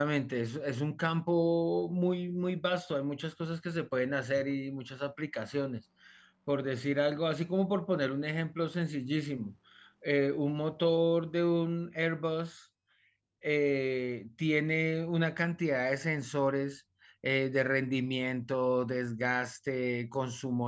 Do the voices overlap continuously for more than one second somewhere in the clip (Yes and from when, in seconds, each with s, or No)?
No